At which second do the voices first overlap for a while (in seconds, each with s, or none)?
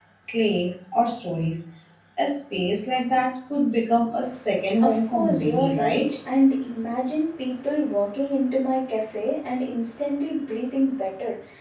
4.8 s